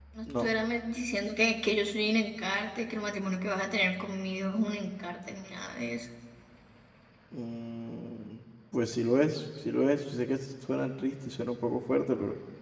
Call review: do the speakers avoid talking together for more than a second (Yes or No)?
Yes